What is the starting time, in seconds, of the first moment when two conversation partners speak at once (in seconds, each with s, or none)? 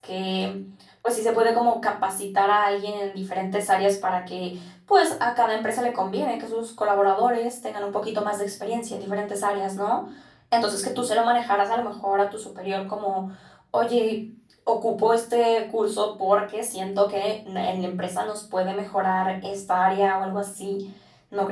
none